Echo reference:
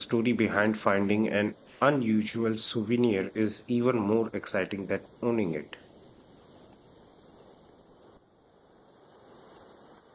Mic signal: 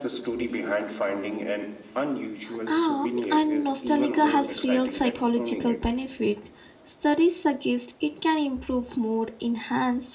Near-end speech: present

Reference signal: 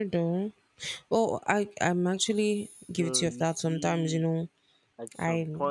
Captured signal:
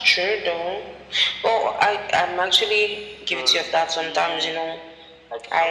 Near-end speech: none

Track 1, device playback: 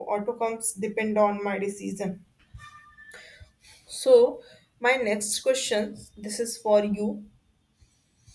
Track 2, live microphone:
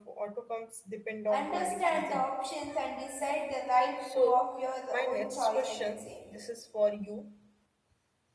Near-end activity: present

